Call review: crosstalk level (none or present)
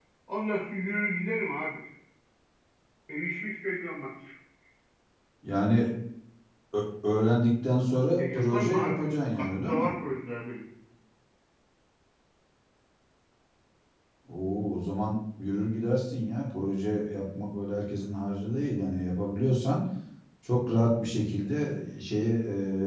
present